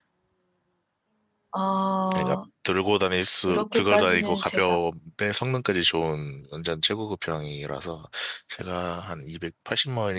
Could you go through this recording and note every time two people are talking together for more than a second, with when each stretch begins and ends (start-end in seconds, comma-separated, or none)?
3.5-4.8